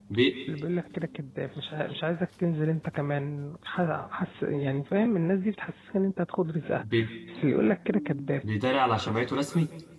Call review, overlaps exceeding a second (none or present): none